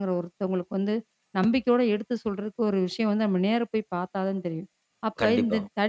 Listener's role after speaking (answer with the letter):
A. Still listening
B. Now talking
A